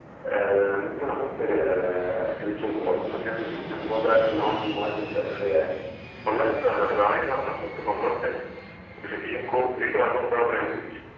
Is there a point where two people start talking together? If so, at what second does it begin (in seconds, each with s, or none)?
none